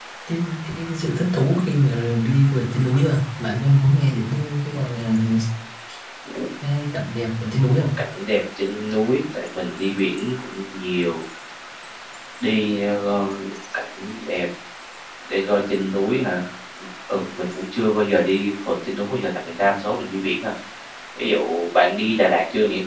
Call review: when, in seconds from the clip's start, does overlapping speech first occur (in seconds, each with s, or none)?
none